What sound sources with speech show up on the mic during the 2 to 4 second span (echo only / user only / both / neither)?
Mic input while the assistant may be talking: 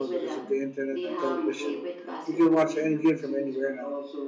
both